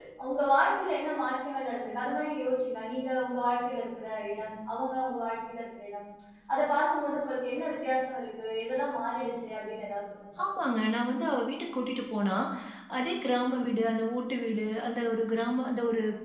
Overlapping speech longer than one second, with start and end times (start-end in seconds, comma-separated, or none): none